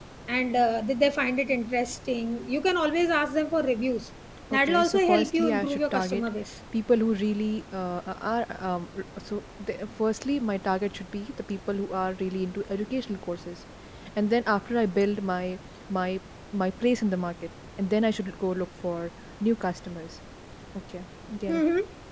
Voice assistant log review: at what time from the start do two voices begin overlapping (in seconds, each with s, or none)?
4.5 s